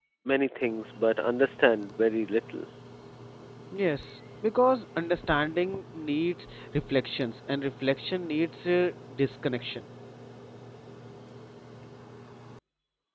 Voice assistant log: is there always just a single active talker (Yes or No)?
Yes